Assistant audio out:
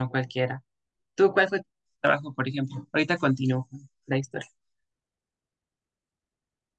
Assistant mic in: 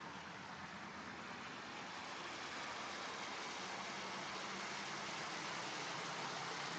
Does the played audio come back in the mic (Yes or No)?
No